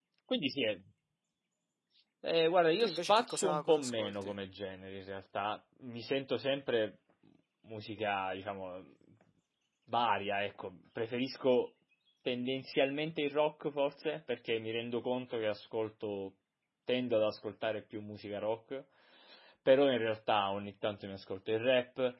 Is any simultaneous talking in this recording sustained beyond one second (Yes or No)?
Yes